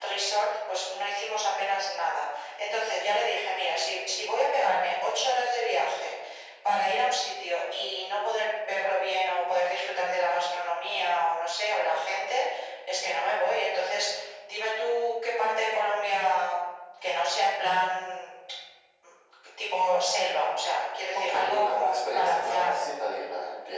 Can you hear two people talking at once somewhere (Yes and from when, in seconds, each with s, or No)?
Yes, from 21.1 s